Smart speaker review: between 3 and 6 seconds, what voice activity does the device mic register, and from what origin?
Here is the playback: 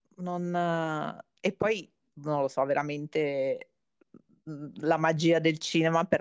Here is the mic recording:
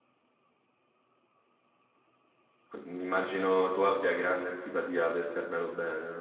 user only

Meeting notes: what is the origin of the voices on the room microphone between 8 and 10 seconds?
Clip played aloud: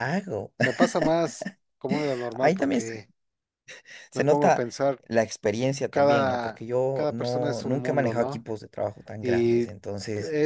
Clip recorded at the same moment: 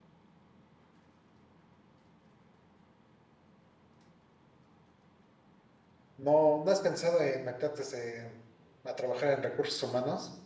user only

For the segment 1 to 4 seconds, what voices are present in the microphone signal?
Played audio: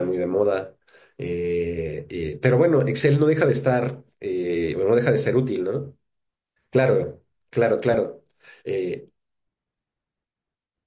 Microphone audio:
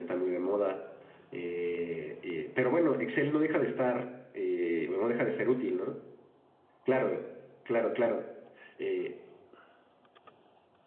echo only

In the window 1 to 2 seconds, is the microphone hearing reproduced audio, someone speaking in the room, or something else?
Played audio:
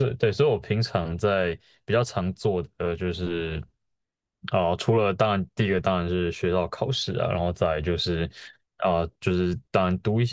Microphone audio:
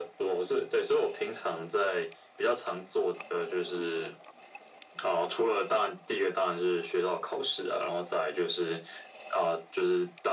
echo only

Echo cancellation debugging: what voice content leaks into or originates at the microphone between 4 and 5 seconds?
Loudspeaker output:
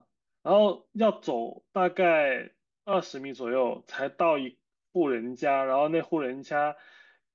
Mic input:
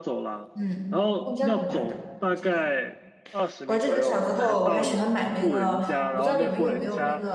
both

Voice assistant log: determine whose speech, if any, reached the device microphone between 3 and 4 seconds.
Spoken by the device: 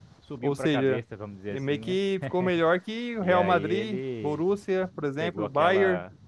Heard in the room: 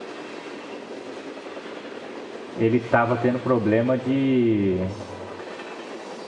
user only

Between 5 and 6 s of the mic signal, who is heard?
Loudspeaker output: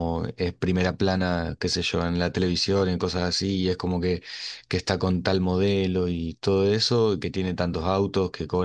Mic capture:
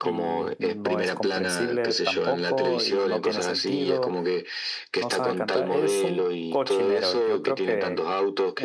both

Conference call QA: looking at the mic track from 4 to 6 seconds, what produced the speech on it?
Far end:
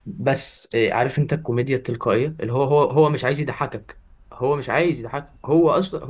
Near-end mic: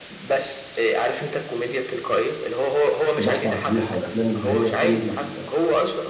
both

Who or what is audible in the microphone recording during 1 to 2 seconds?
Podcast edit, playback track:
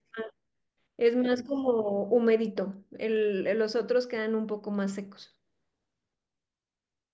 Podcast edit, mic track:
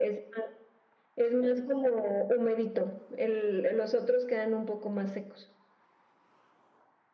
echo only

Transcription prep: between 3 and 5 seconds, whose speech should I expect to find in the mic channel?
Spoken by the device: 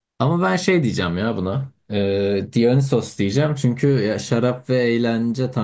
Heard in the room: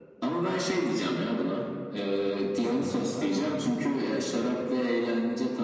both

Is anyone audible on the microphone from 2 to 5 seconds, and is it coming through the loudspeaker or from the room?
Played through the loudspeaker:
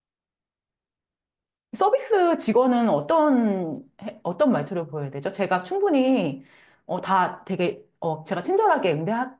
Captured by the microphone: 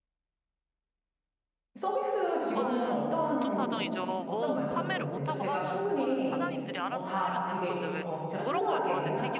both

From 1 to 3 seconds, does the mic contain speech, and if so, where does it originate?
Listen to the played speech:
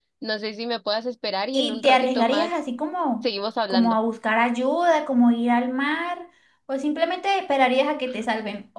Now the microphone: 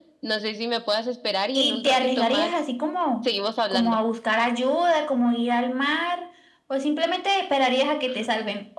echo only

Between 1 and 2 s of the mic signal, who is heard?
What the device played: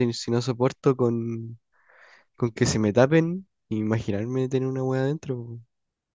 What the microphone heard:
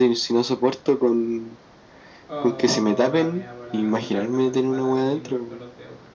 echo only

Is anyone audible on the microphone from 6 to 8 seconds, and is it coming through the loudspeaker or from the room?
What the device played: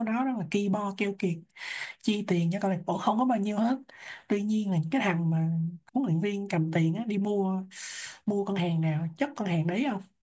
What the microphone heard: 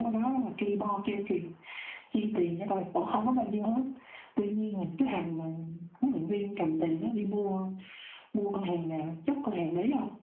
echo only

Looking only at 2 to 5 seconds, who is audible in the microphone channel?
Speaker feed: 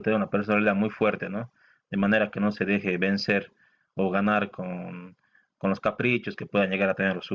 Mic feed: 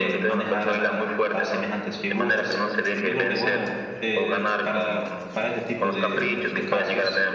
both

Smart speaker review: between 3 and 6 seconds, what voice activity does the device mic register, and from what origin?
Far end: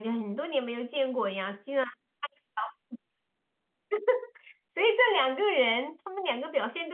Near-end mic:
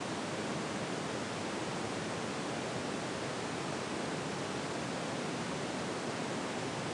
neither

